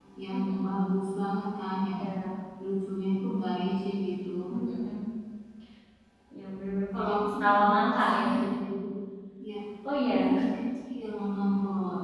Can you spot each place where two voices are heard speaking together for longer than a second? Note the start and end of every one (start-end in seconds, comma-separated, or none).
6.9-8.3